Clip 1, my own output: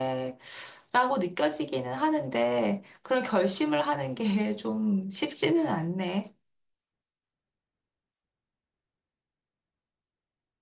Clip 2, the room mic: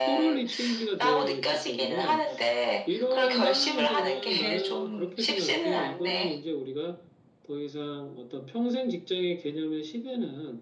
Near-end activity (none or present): present